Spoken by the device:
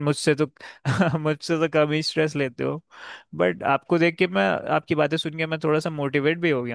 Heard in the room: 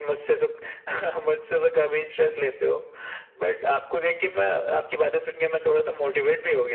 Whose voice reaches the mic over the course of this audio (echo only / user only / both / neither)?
echo only